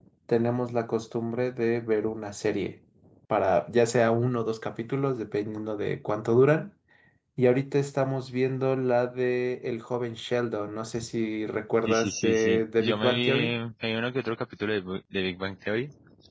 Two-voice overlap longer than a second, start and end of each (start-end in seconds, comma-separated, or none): 11.9-13.5